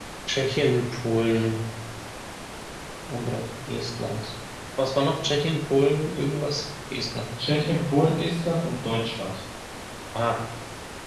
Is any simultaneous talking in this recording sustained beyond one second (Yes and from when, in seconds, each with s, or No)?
No